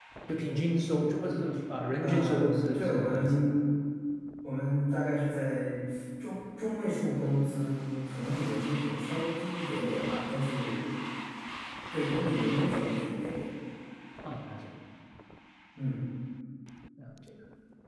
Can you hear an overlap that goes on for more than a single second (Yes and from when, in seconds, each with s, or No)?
Yes, from 2.0 s